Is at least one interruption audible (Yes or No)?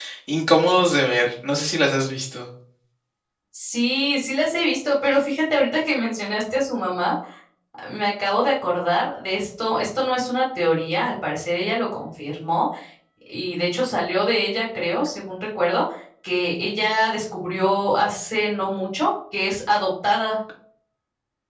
No